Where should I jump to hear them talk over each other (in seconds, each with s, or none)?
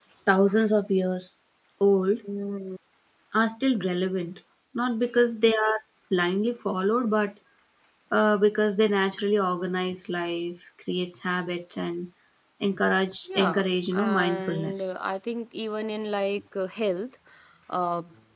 13.3 s